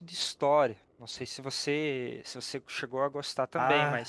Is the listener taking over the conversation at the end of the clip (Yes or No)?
Yes